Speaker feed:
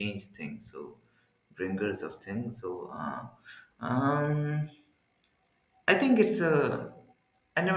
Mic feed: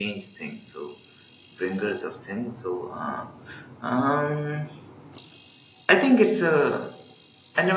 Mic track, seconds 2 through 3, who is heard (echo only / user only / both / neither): echo only